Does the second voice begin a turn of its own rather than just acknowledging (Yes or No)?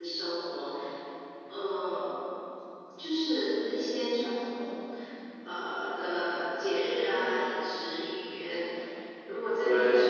No